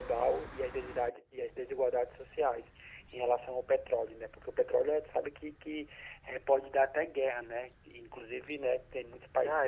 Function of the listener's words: taking over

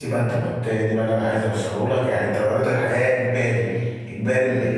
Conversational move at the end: listening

